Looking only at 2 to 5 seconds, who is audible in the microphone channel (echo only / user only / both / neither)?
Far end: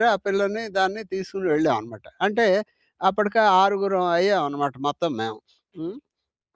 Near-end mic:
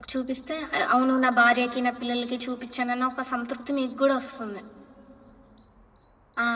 user only